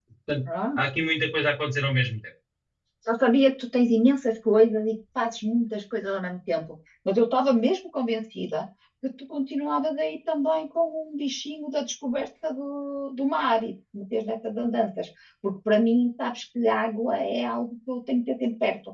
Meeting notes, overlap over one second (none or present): none